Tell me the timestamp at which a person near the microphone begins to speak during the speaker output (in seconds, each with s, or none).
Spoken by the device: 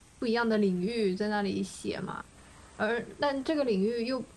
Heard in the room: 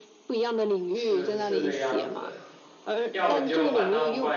0.9 s